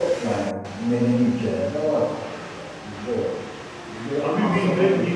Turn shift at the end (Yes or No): Yes